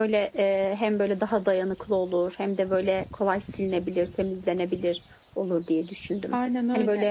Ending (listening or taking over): taking over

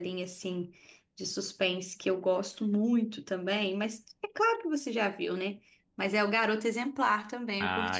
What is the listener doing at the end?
taking over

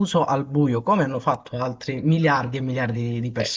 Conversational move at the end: taking over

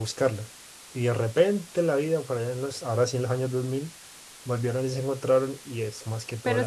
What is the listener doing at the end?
taking over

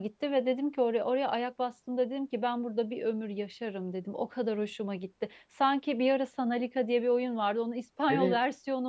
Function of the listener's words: listening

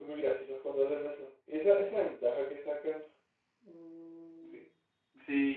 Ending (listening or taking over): taking over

